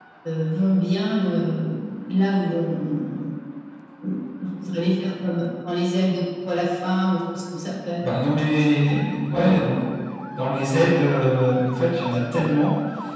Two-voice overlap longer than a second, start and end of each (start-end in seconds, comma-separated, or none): none